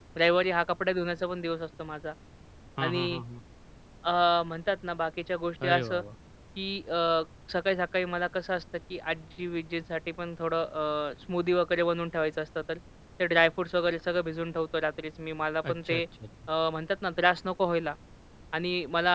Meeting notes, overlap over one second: none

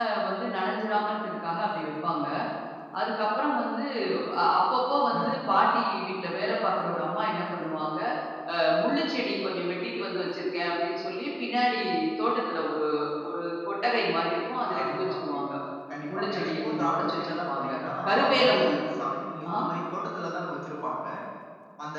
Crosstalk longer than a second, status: present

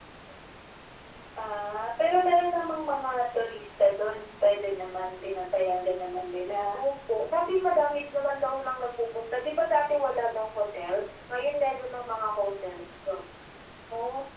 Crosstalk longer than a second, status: none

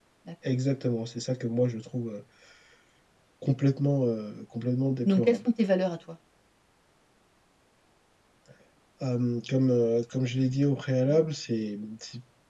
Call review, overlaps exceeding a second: none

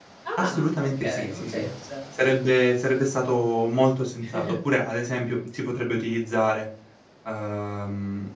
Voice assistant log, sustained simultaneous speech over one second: present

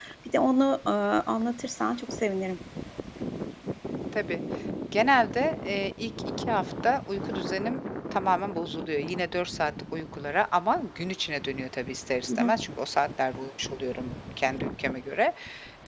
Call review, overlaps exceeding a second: none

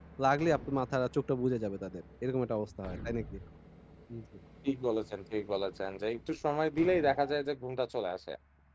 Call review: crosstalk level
none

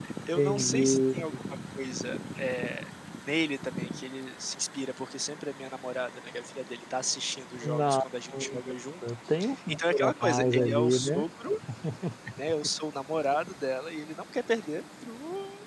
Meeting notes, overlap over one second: present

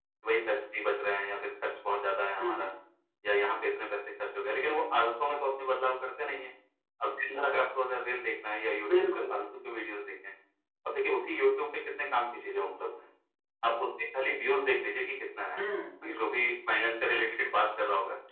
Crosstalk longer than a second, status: none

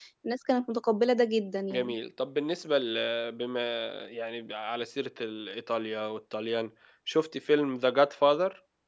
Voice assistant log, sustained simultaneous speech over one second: none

